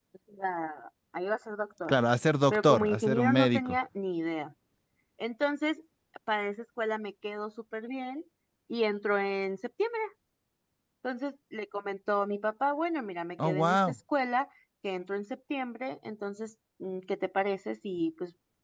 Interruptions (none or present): present